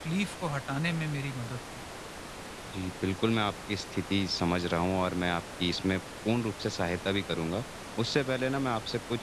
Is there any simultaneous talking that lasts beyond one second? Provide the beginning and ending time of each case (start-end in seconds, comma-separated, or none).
none